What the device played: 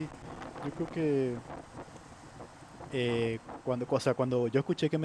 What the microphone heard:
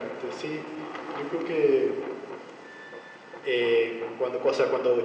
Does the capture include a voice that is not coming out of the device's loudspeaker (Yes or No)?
No